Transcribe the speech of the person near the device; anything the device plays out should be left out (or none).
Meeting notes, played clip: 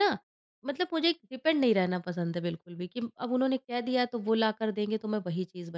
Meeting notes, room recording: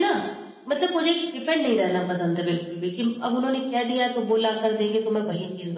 none